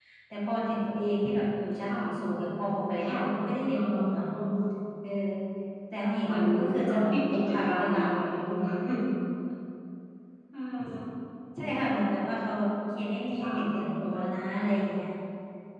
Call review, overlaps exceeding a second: present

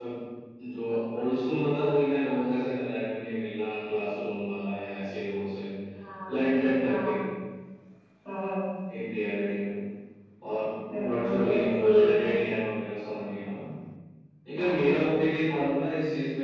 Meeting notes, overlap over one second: present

